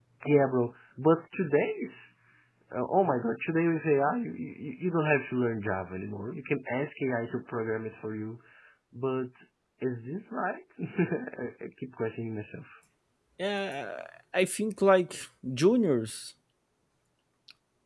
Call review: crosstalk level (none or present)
none